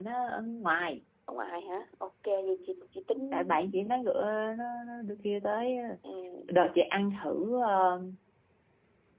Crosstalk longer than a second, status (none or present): none